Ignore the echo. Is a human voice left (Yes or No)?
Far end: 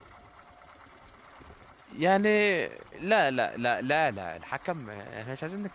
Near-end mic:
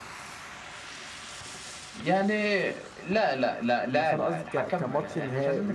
Yes